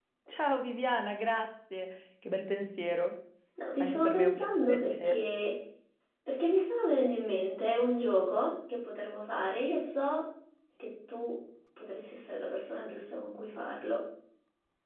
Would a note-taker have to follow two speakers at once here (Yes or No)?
Yes